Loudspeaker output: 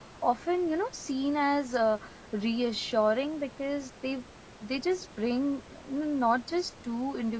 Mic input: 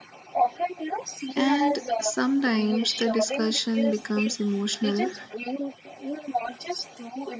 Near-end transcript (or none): And sometimes the discussion becomes emotional.